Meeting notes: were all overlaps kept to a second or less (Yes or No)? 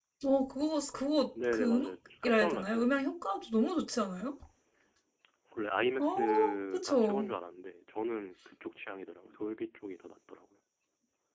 No